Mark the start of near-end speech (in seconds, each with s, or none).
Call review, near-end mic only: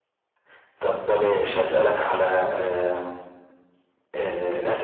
none